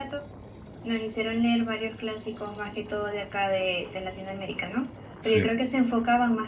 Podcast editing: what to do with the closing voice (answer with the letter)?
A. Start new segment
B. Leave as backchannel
B